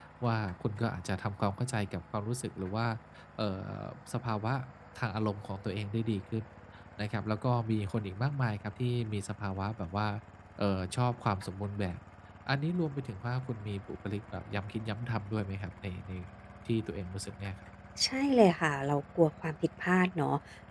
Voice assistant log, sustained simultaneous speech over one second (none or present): none